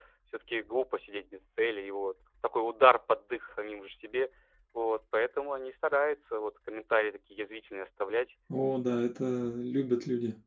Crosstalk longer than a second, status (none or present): none